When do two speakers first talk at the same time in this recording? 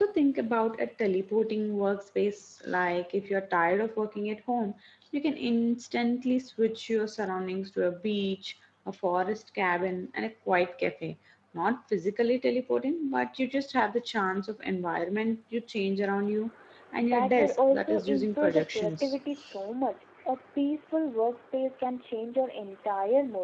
17.1 s

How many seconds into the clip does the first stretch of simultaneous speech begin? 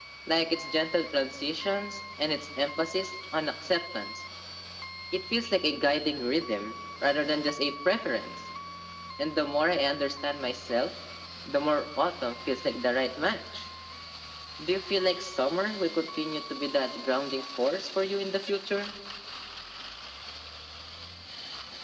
none

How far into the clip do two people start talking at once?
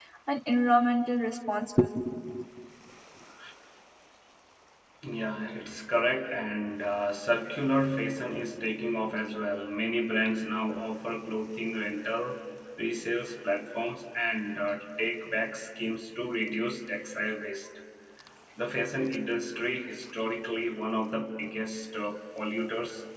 none

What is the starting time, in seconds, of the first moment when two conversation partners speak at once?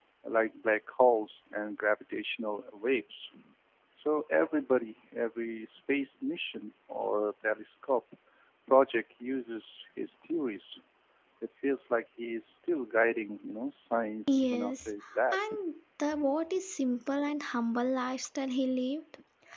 14.3 s

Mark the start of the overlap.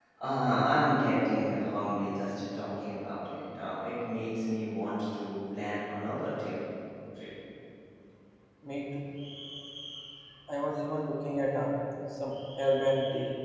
none

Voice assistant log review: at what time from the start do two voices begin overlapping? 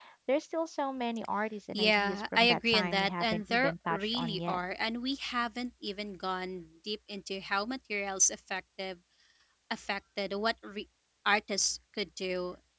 1.7 s

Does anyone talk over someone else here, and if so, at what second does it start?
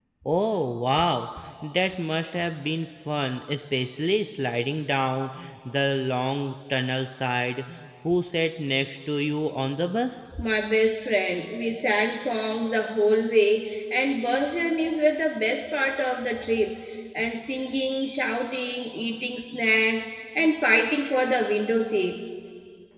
none

